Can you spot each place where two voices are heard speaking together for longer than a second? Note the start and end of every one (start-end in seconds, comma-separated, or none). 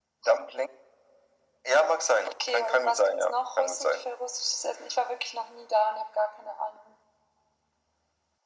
2.5-4.1